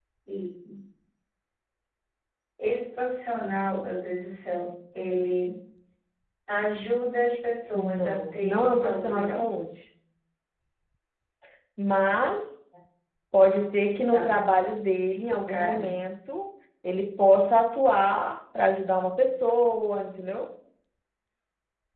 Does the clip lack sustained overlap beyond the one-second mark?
No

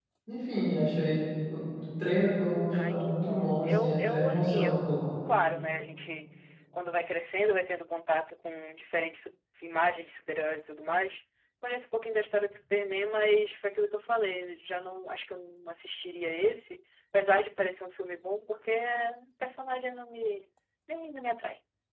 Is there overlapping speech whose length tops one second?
Yes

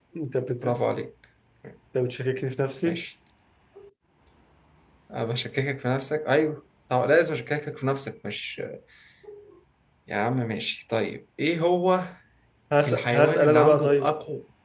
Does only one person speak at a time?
No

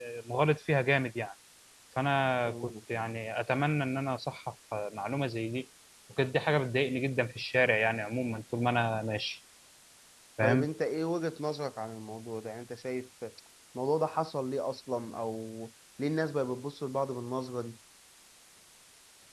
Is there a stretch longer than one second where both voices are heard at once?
No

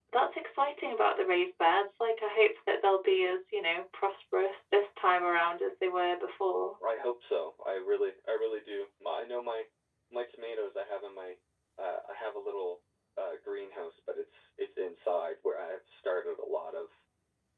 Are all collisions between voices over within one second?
Yes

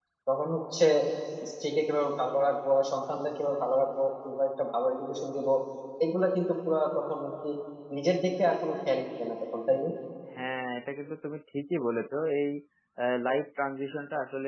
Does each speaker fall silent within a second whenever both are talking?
Yes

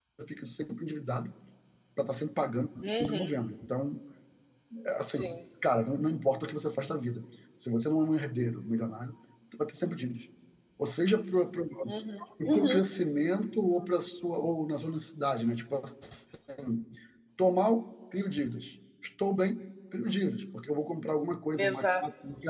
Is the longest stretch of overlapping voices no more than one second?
Yes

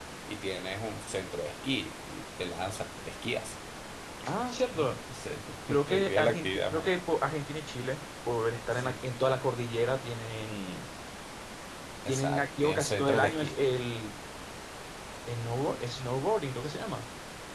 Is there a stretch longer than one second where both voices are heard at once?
Yes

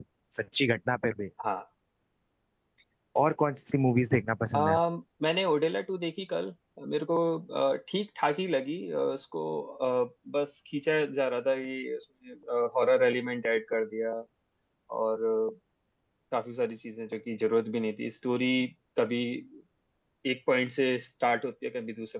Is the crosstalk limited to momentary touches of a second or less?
Yes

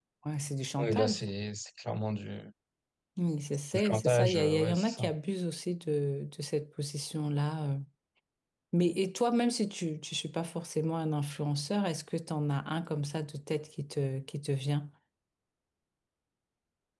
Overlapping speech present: Yes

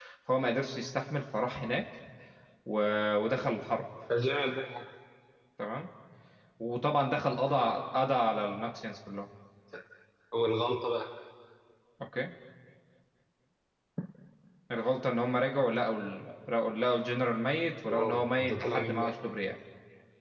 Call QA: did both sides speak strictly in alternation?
No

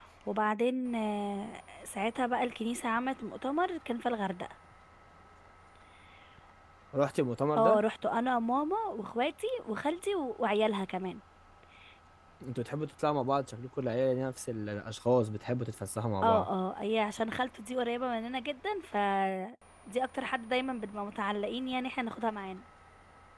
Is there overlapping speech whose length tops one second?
No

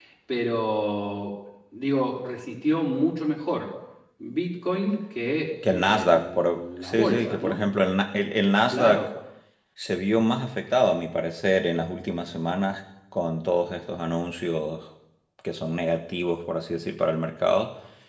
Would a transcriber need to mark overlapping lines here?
Yes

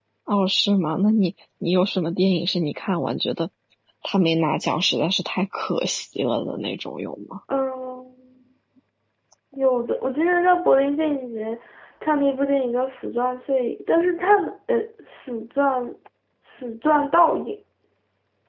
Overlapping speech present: No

